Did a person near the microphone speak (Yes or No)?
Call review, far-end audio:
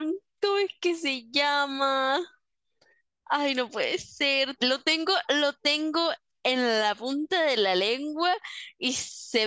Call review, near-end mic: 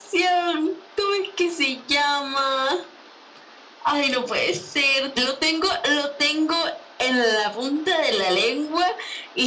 No